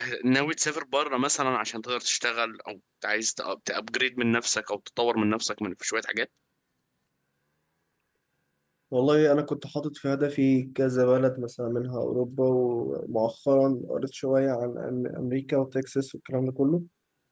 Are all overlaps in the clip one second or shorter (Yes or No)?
Yes